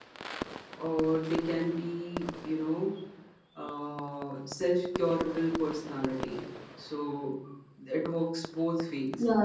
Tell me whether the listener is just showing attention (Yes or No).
Yes